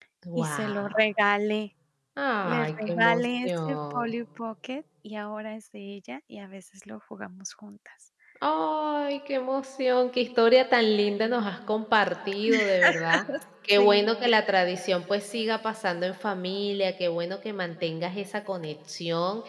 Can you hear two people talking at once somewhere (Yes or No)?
Yes